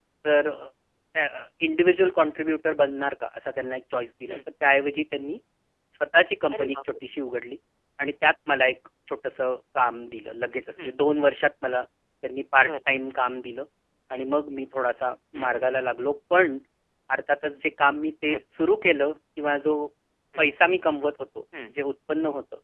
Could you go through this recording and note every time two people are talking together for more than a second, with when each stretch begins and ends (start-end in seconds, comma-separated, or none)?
none